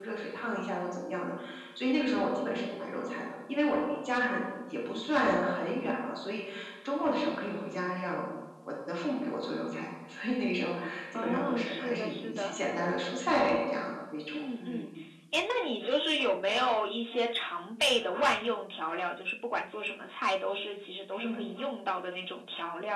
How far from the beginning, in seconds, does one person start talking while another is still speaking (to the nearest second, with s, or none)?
11 s